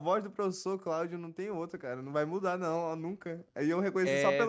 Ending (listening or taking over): listening